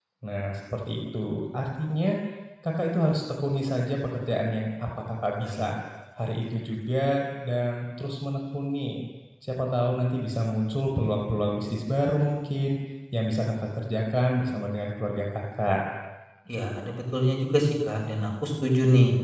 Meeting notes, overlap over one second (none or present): none